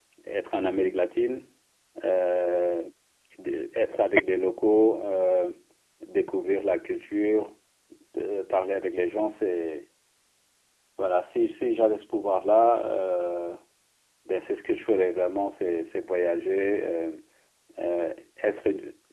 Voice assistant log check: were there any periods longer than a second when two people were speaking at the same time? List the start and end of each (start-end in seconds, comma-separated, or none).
none